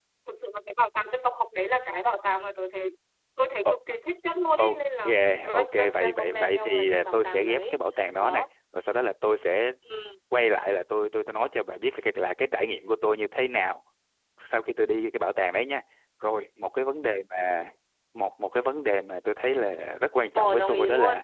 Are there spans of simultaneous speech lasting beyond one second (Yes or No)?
Yes